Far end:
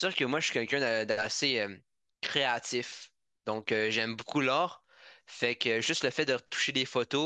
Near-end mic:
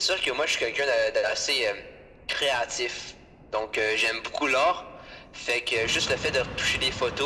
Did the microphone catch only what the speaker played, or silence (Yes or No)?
Yes